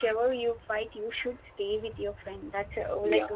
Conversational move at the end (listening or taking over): listening